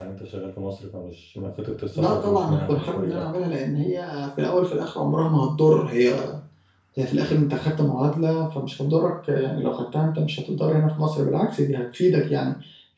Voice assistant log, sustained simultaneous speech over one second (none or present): present